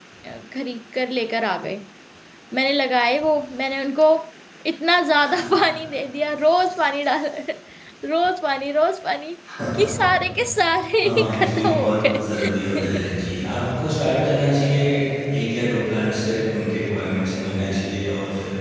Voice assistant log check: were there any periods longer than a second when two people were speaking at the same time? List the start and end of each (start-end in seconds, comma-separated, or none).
11.0-13.0